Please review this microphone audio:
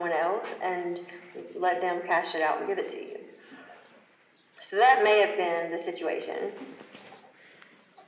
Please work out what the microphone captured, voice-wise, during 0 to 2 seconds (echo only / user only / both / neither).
echo only